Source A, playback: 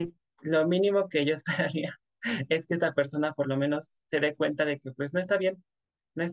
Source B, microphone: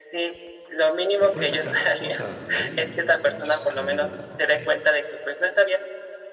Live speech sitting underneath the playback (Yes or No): Yes